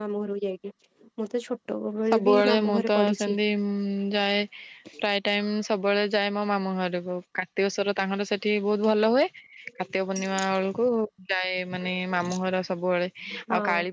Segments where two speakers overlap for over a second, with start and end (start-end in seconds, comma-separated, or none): 2.1-3.4